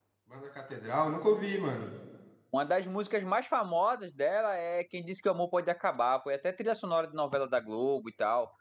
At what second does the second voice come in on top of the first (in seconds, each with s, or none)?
none